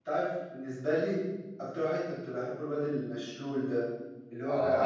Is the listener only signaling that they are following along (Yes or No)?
Yes